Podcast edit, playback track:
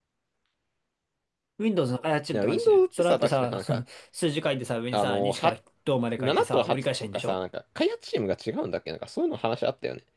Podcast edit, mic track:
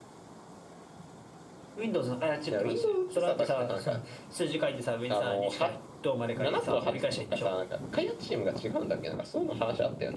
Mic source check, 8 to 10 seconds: echo only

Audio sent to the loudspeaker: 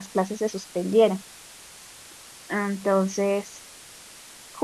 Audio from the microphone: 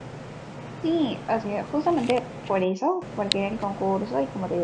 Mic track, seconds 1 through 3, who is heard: user only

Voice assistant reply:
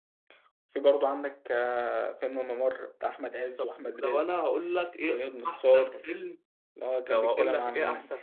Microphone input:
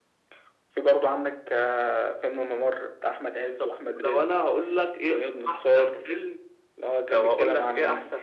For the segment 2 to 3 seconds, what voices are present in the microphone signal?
echo only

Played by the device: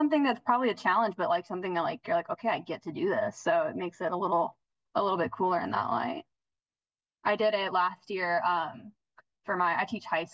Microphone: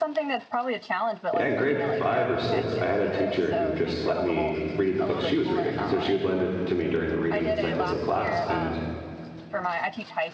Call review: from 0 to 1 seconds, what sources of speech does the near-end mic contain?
echo only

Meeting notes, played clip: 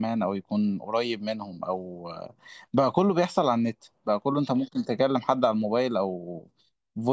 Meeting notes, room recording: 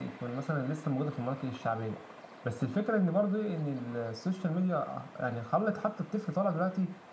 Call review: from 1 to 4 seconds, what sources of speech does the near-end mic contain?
user only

